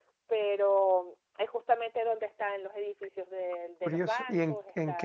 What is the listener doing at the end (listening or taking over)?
taking over